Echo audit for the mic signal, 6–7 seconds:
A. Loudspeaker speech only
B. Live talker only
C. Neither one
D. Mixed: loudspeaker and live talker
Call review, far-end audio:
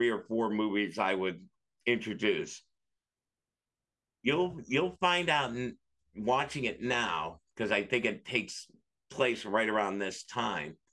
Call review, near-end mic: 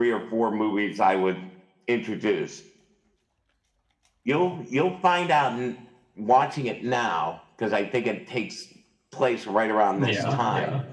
A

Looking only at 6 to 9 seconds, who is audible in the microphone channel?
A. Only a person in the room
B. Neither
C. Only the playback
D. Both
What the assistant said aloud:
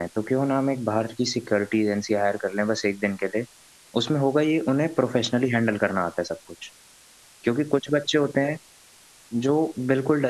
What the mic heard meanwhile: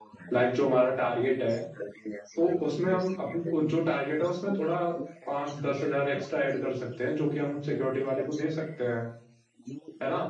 D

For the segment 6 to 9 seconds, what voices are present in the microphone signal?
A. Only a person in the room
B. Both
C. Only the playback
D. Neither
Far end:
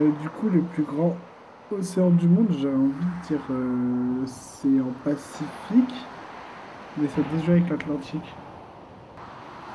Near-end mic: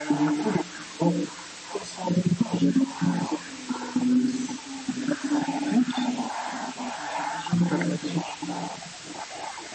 C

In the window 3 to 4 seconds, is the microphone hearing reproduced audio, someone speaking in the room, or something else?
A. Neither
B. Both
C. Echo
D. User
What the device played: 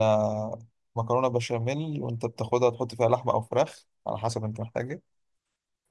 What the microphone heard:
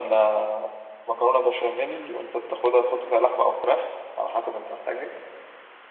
C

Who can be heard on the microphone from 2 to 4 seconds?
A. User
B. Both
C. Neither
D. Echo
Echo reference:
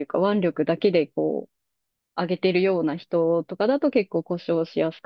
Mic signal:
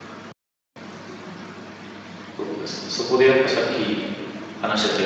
A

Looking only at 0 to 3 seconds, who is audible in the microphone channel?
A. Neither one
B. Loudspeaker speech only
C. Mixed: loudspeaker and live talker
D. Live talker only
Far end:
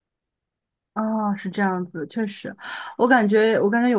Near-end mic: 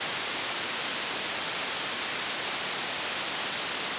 A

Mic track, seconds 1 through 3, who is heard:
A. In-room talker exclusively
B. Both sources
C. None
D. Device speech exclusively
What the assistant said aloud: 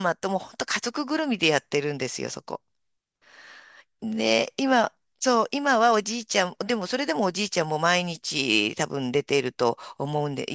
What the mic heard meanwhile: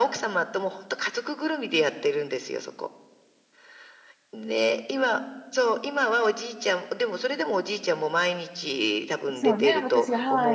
D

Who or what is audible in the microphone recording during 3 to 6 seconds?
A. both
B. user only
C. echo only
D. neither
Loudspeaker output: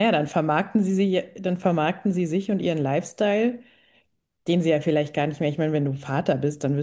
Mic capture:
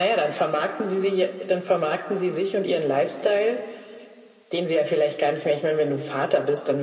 C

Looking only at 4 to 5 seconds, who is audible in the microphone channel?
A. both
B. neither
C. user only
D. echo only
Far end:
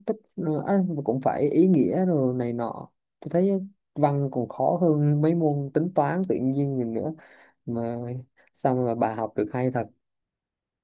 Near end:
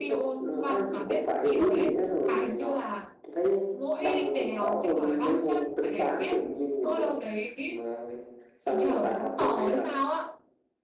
A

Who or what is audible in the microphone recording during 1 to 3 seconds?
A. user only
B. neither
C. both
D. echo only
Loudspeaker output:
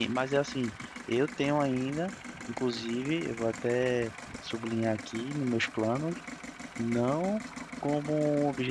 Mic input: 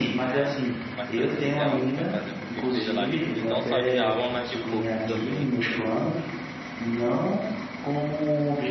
C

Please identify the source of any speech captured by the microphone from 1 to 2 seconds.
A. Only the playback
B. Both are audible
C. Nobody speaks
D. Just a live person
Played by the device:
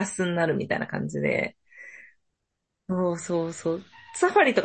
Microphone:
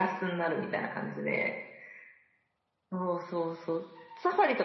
A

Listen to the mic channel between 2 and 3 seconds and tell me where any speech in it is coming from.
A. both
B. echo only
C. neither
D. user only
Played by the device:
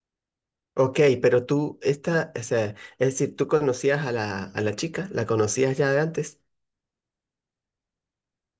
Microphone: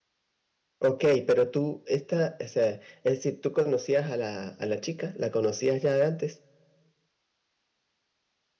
B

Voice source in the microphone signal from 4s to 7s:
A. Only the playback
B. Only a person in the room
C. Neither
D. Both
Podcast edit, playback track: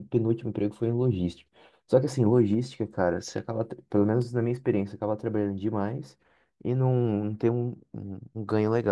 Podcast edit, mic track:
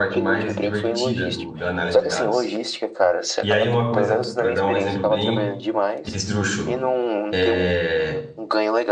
D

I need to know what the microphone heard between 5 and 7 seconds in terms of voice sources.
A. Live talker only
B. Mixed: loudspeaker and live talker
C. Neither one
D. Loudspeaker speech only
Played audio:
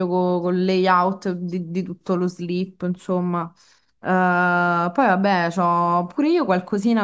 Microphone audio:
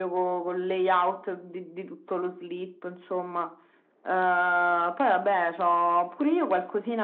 D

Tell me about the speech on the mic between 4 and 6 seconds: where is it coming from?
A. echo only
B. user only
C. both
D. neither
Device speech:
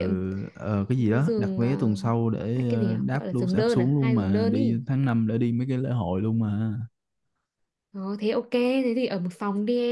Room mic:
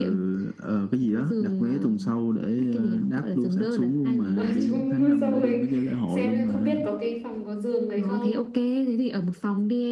C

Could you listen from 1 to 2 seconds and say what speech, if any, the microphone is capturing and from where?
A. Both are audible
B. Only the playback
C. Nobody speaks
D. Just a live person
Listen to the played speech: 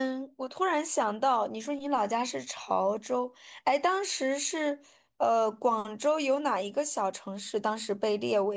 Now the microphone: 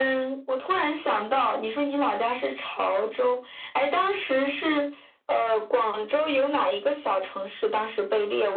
B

